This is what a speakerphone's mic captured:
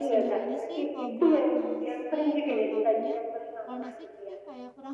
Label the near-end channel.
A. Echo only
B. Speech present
B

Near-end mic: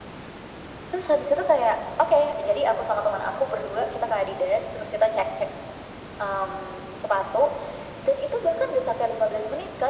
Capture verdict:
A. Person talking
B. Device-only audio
B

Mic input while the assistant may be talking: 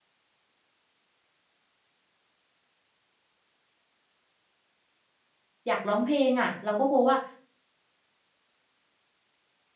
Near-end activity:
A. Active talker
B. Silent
A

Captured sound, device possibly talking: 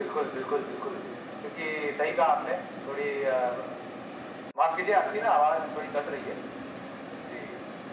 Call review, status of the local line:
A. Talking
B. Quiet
B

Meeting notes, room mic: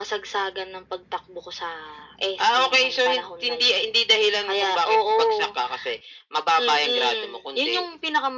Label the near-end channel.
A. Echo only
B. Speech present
A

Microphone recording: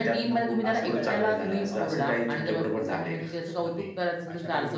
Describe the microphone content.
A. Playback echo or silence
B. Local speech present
B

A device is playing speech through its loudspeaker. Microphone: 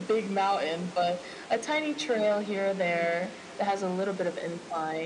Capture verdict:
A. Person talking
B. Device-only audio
B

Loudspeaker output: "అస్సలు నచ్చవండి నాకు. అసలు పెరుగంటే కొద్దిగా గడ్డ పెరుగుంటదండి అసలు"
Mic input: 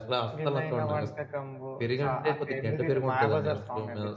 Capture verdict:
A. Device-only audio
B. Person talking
B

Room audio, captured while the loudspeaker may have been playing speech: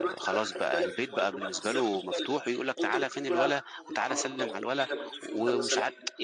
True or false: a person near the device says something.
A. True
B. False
A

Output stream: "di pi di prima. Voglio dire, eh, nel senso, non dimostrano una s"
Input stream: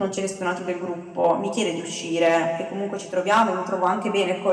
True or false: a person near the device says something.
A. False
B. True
B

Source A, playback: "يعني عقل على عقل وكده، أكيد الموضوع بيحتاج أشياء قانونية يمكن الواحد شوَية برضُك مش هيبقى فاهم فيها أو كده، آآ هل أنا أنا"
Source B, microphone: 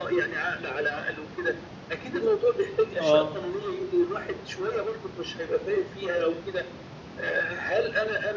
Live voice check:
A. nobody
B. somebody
B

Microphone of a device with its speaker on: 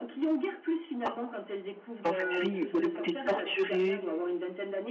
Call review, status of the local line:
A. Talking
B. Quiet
A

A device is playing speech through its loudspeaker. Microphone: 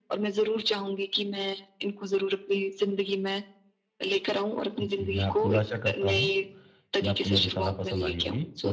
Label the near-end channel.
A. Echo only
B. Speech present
B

